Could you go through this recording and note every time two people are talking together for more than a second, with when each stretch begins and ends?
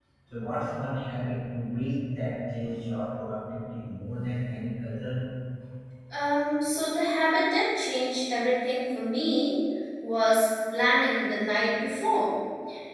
none

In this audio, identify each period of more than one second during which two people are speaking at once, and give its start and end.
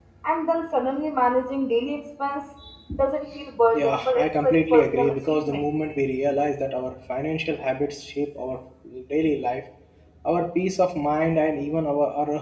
3.7-5.6

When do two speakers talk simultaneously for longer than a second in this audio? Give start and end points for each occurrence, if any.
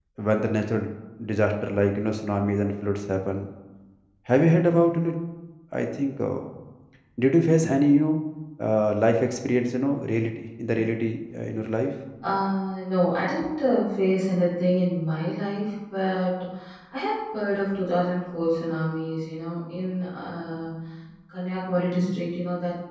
none

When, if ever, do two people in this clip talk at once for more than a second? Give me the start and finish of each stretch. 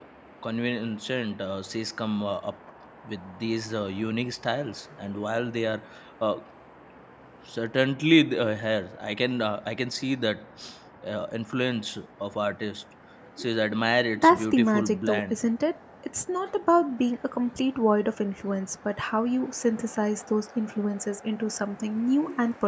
14.2-15.4

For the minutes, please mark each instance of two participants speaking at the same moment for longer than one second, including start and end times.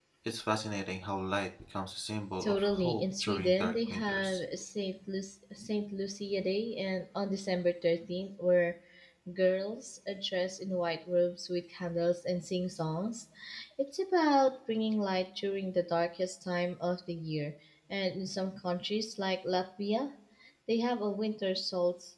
2.4-4.4

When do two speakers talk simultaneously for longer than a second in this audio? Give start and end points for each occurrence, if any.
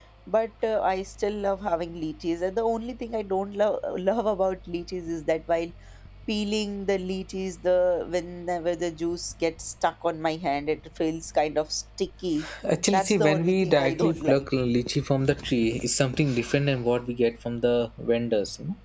12.9-14.4

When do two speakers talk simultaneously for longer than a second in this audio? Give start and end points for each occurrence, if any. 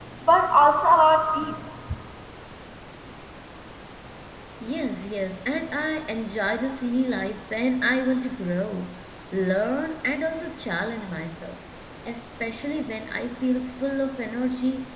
none

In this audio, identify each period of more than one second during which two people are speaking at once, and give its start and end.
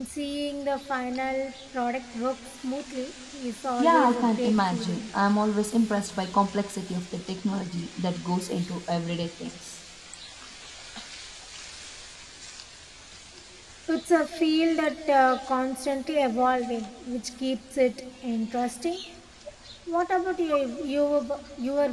3.8-5.0

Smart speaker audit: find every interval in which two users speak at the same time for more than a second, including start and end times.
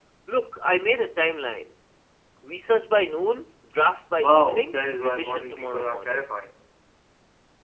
4.2-6.2

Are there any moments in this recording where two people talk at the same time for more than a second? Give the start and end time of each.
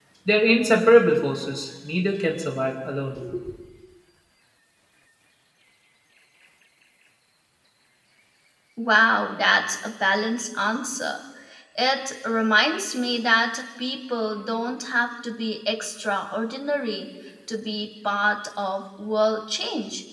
none

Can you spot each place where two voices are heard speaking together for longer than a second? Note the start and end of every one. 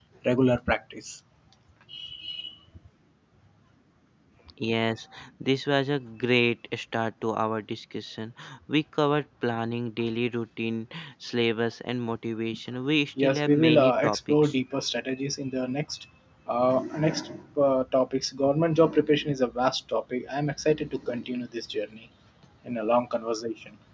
13.2-14.5

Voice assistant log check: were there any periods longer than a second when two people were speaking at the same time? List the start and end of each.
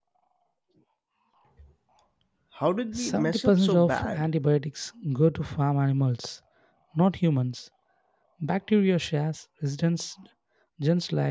3.1-4.3

